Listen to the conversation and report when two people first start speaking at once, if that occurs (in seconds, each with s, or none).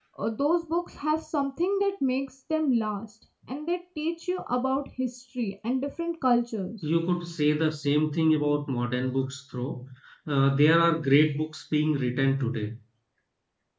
none